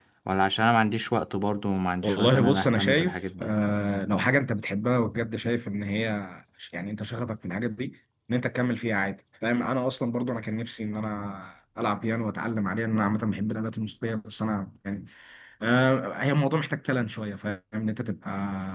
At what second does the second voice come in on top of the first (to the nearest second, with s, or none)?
2 s